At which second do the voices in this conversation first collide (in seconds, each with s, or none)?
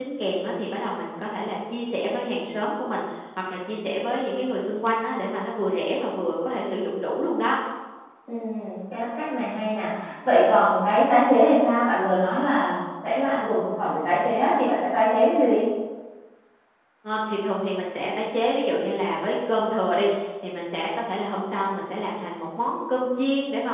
none